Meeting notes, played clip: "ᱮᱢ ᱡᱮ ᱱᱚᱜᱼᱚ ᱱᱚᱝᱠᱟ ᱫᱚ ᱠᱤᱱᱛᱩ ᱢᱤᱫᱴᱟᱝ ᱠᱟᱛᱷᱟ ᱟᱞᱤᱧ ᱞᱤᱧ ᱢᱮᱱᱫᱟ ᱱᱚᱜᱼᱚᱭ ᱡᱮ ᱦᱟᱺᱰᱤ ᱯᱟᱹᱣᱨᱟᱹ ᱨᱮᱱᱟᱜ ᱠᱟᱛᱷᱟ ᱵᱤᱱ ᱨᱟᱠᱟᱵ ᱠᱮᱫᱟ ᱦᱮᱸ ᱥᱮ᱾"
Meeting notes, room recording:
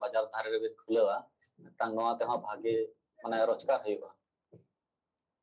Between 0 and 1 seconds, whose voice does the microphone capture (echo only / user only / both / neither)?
user only